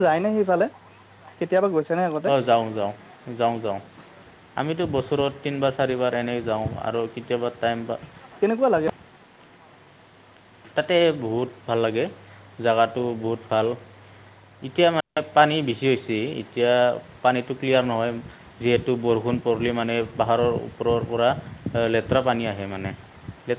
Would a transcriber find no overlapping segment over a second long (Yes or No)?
Yes